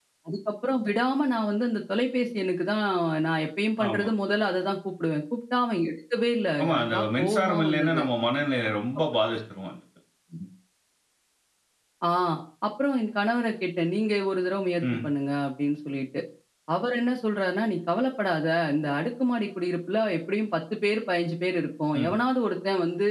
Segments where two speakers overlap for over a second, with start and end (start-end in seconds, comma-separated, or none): 6.6-8.0